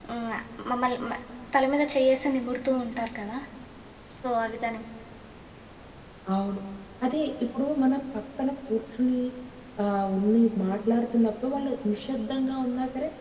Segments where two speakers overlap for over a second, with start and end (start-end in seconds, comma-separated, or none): none